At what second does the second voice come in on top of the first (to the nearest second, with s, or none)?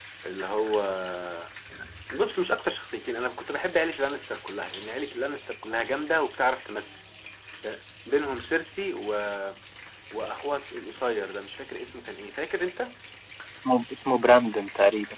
none